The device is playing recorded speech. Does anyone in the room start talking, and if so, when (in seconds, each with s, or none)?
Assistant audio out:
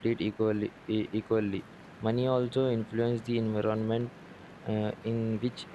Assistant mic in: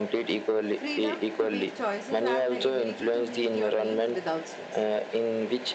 0.6 s